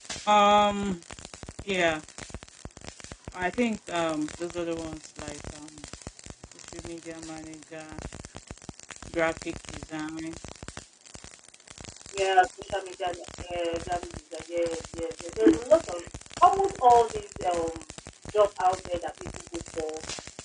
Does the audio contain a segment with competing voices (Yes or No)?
No